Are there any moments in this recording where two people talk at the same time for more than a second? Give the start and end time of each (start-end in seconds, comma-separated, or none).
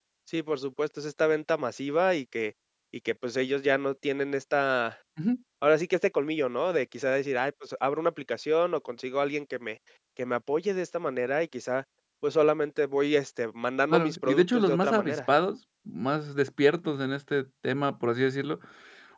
13.9-15.2